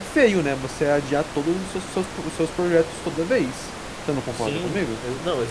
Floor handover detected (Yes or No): Yes